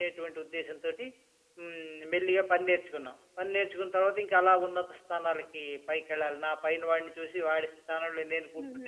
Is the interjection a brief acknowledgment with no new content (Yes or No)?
No